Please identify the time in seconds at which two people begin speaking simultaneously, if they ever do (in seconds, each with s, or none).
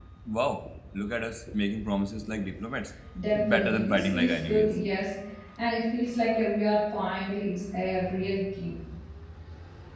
3.3 s